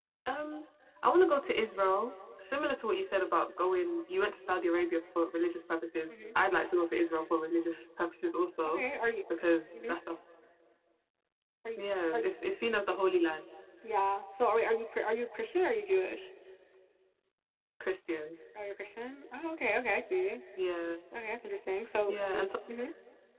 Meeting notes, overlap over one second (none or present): none